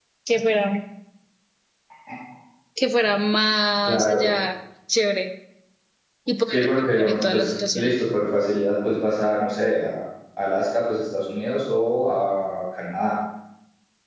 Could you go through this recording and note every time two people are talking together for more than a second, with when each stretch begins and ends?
6.5-8.0

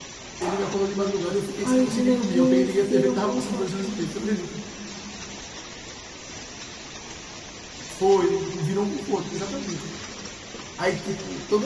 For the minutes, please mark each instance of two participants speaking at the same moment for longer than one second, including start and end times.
1.6-4.3

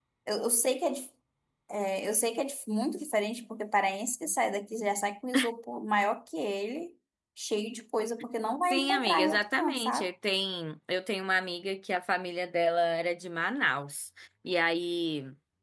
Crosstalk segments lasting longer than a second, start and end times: 8.6-10.1

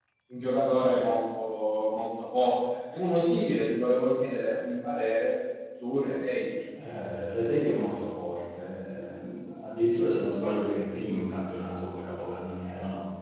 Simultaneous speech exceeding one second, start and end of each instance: none

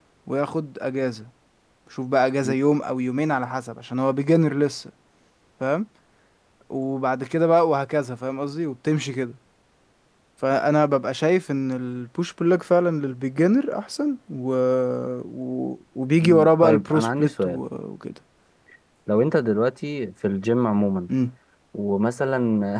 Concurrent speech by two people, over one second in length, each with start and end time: 16.2-17.6

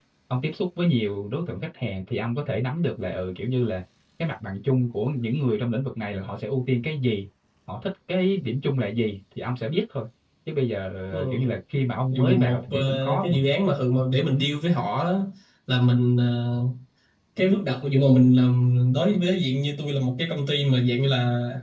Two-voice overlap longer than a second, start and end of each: 12.1-13.4

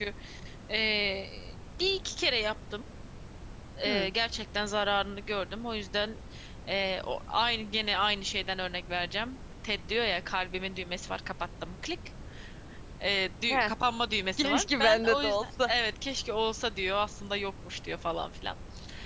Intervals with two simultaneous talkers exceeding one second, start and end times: 14.4-15.7

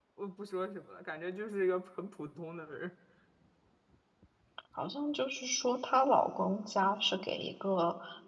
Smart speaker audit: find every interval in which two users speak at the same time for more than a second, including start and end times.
none

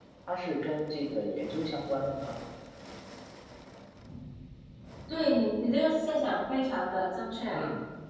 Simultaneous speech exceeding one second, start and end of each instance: none

